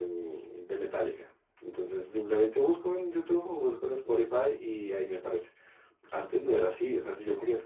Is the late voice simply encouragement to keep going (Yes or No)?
Yes